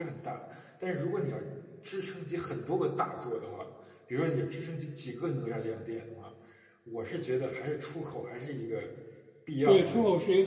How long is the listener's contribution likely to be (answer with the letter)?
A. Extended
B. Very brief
A